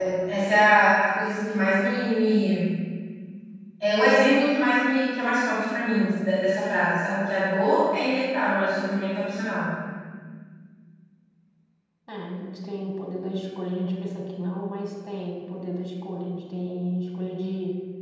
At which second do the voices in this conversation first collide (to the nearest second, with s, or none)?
none